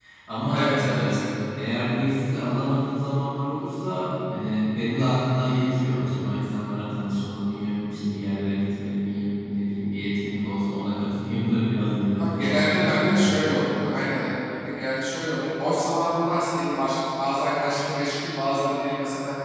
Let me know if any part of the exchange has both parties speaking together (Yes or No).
Yes